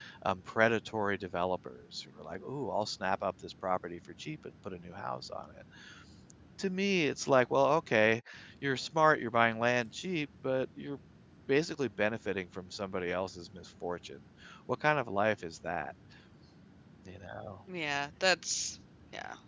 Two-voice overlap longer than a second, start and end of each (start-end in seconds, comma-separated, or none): none